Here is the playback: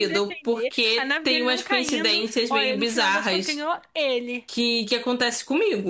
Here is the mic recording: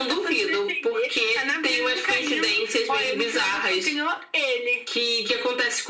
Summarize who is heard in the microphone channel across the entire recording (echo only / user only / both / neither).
echo only